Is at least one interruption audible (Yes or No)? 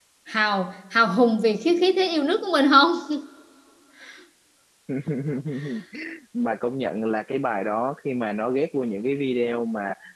No